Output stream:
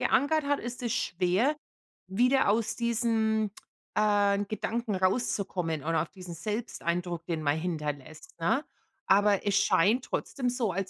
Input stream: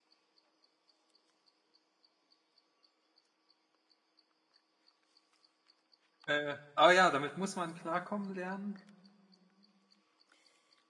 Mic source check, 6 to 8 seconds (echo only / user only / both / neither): user only